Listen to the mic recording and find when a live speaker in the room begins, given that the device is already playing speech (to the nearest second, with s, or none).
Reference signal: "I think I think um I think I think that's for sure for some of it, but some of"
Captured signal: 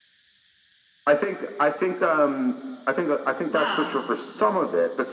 3 s